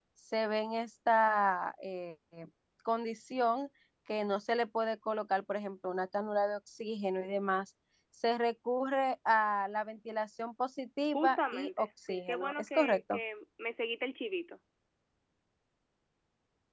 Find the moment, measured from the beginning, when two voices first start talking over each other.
11 s

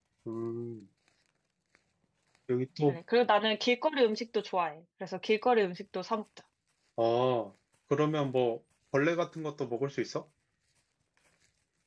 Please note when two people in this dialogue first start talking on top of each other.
none

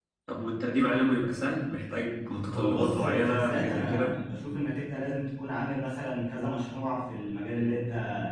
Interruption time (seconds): 2 s

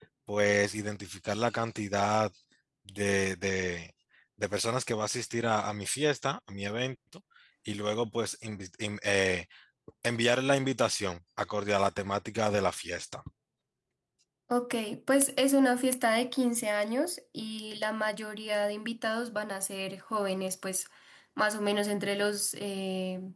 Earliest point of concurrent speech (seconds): none

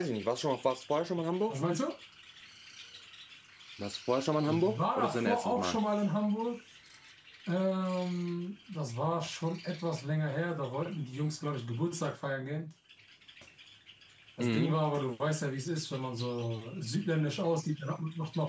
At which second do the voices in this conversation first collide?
4 s

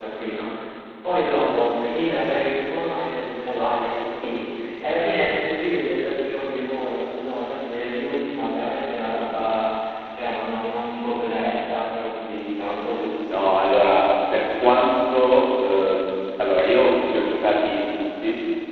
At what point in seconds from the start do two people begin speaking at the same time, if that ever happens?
none

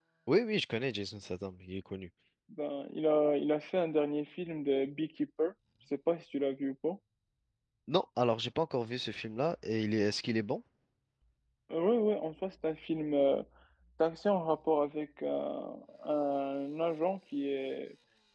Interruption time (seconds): none

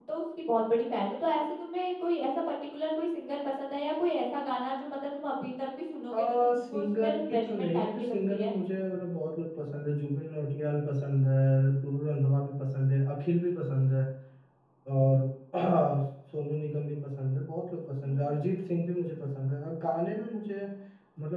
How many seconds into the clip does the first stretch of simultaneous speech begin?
6 s

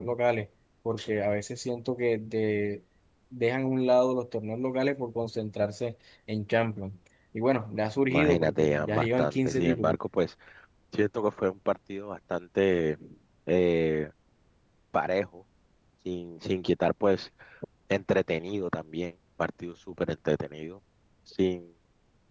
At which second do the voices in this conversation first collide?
8 s

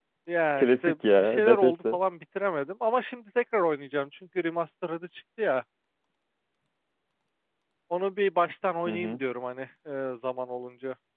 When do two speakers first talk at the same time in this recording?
1 s

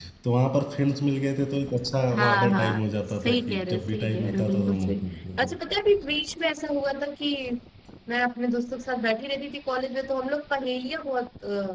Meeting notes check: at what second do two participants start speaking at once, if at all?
2 s

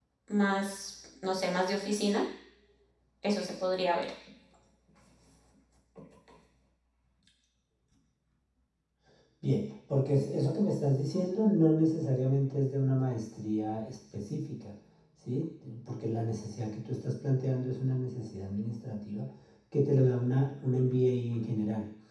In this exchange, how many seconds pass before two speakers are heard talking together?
none

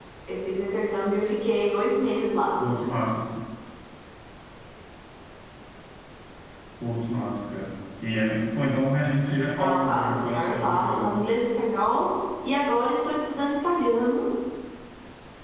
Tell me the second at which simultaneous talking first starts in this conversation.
10 s

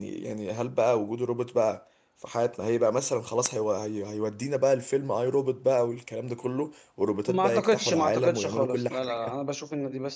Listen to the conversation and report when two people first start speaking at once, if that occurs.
7 s

